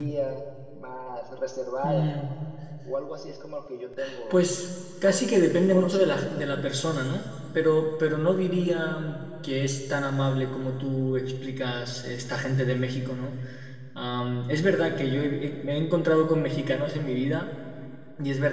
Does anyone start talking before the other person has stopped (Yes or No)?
Yes